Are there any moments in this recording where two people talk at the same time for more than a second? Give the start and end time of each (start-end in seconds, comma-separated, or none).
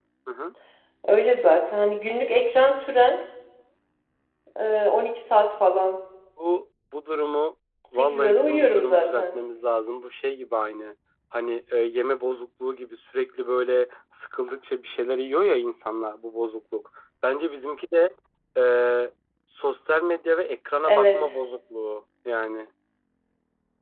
8.0-9.3